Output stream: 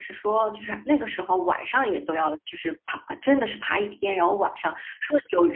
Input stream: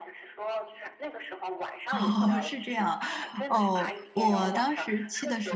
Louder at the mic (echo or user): user